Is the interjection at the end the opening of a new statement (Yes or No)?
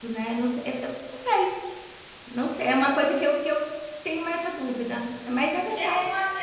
Yes